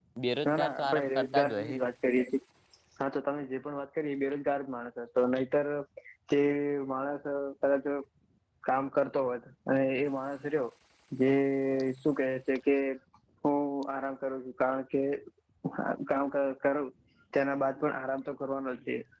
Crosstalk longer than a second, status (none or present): present